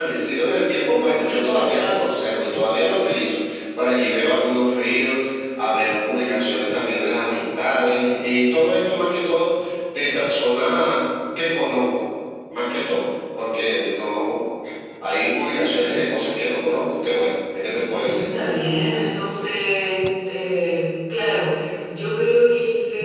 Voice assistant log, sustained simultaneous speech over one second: none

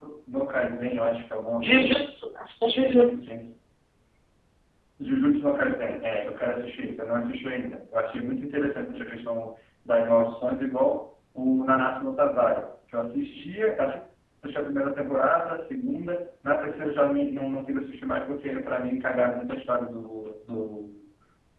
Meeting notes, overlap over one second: none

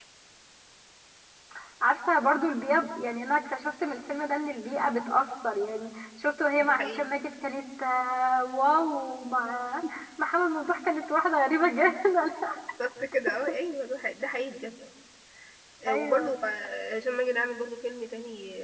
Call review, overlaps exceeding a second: none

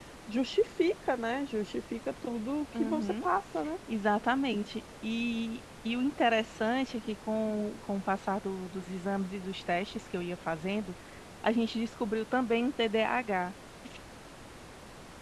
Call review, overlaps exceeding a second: none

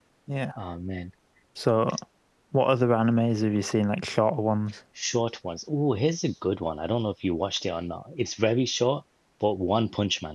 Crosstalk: none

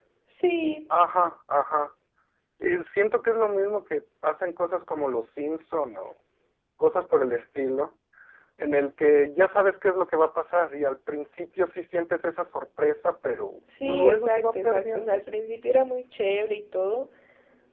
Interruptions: present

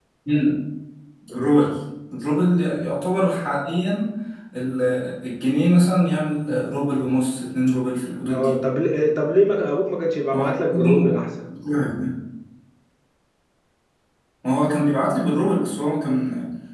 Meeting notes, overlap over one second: none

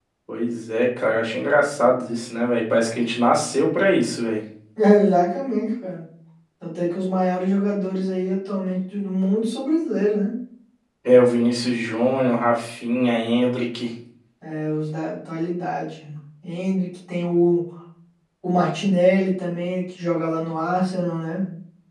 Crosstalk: none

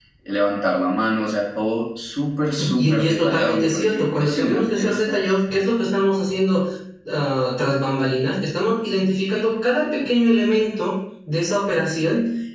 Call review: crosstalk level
present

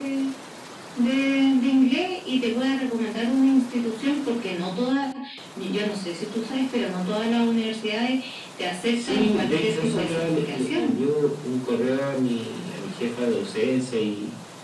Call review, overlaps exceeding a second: present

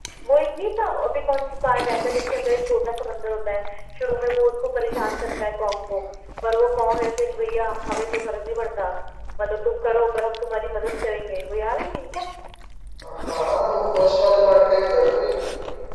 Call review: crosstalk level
none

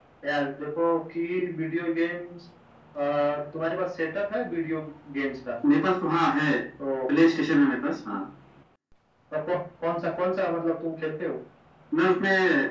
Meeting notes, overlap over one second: none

